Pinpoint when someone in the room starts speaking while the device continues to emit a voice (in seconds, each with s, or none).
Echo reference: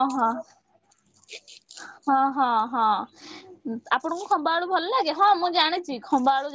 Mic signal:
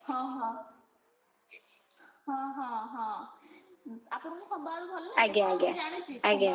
5.2 s